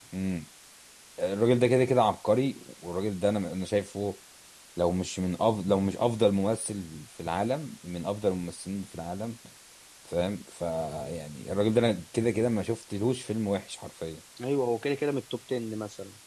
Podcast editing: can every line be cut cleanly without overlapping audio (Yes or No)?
Yes